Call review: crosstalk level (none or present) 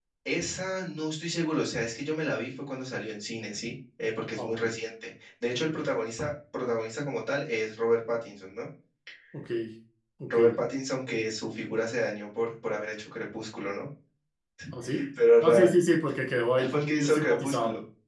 present